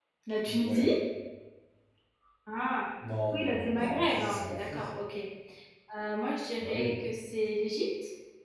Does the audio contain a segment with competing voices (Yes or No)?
Yes